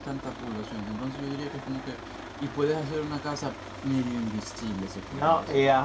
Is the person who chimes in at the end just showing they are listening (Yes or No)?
No